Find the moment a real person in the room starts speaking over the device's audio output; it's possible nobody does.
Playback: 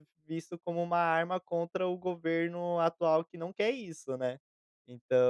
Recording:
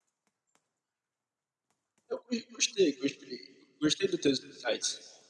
2.1 s

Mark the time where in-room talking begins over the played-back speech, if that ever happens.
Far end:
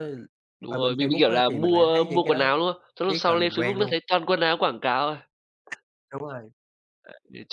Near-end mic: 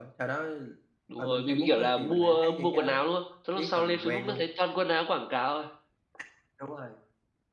none

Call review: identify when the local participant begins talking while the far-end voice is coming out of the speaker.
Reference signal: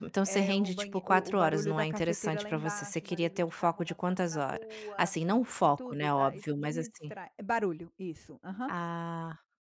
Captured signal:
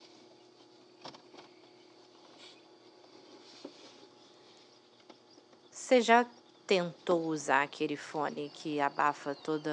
5.7 s

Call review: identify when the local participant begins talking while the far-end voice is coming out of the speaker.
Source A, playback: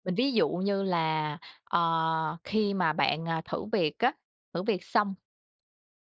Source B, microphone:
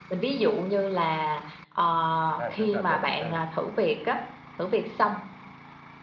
2.4 s

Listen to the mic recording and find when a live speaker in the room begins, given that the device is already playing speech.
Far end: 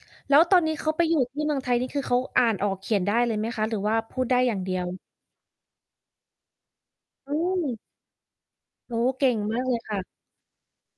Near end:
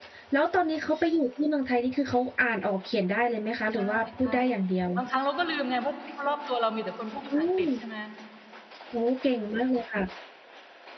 3.7 s

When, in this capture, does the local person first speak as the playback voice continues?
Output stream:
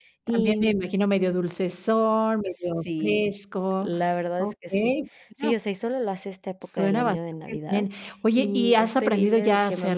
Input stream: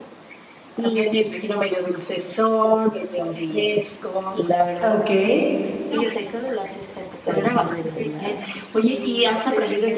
4.8 s

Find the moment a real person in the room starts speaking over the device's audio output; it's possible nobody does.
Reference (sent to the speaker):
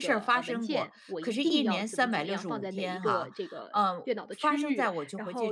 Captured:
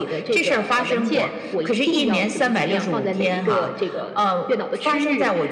none

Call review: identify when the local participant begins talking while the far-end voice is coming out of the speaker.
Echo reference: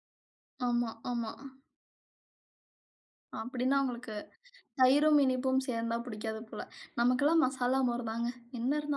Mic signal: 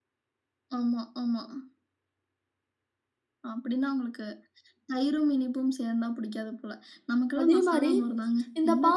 7.4 s

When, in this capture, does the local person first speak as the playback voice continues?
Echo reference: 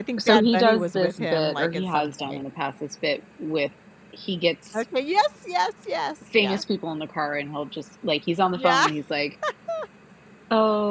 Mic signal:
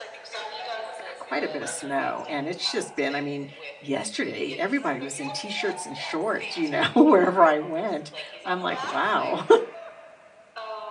1.0 s

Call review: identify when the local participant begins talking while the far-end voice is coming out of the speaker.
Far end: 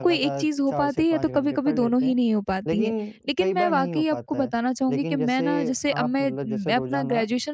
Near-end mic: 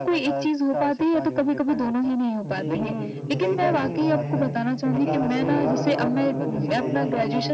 2.4 s

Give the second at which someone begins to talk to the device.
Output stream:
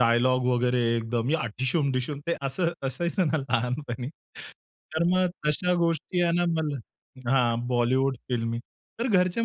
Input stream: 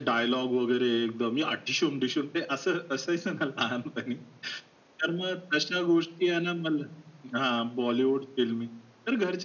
none

